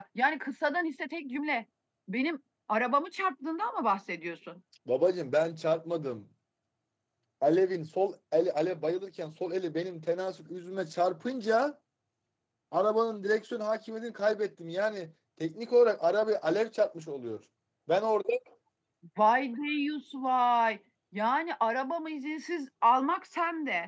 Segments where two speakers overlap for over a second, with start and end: none

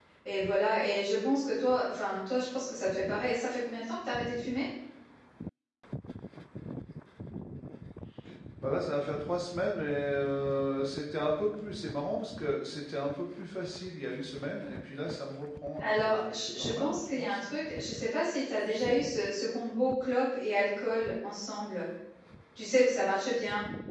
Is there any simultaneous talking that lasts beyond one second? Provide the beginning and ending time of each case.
15.8-17.4

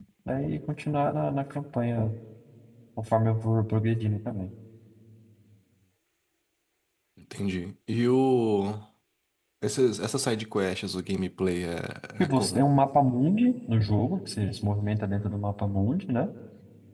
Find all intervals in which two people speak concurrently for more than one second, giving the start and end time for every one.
none

